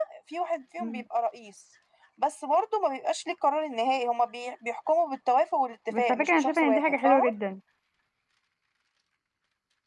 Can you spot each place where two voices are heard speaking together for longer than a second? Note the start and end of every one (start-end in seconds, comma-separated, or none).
6.0-7.2